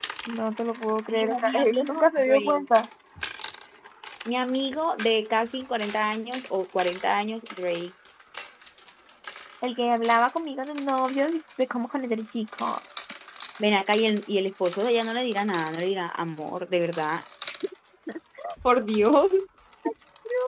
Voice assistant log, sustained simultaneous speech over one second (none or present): present